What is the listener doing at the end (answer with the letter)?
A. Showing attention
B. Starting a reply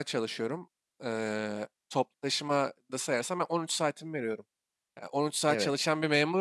A